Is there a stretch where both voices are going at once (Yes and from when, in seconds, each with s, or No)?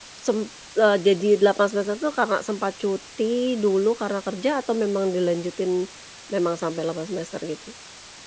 No